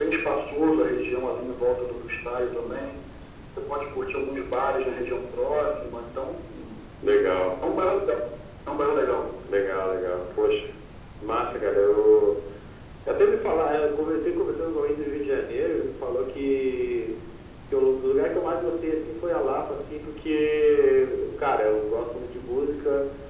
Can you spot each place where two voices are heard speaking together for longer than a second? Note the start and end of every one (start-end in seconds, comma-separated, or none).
none